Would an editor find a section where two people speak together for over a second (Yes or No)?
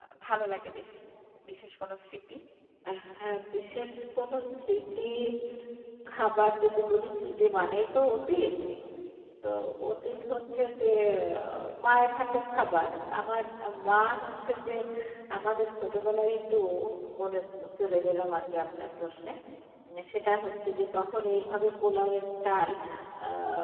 No